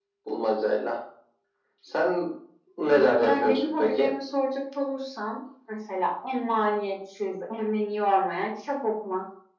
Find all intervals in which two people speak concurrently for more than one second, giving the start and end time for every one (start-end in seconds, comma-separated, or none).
2.9-4.1